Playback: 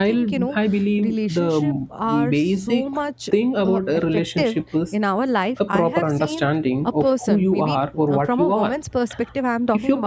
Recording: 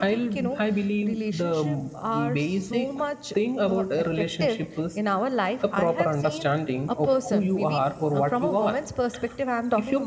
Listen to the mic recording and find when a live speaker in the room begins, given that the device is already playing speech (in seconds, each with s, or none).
none